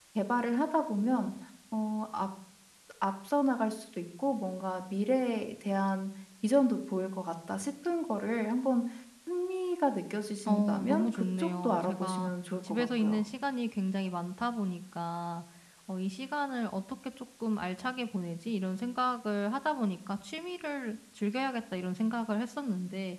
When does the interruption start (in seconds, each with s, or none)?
10.5 s